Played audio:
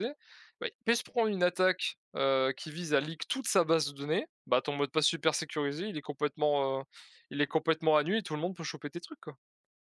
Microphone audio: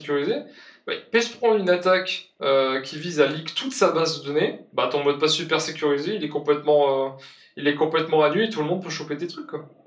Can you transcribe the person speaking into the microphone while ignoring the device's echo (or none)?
none